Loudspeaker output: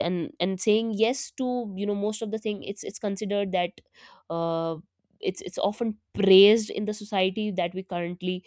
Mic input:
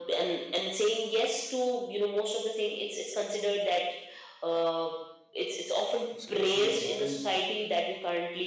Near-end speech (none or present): present